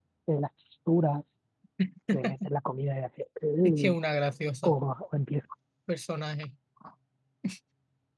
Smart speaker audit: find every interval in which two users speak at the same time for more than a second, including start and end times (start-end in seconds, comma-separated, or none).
none